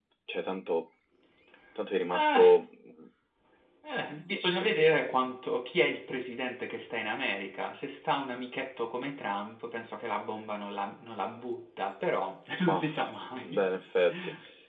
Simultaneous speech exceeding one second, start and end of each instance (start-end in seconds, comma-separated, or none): none